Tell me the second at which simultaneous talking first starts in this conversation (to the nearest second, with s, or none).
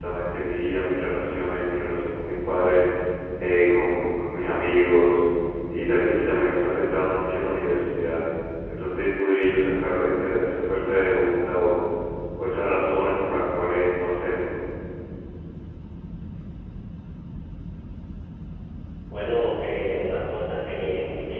none